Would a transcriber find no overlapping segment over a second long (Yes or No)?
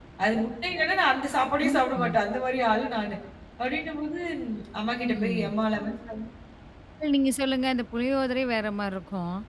Yes